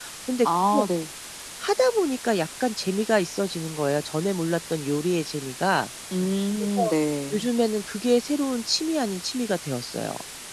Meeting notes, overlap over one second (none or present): none